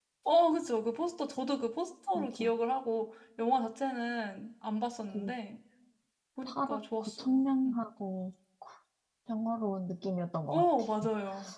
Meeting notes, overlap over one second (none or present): present